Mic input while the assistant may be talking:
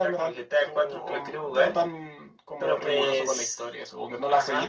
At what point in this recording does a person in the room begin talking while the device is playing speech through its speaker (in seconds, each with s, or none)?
none